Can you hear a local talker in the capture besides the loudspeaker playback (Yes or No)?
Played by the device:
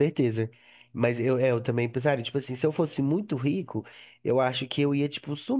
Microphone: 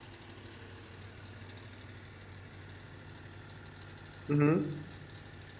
Yes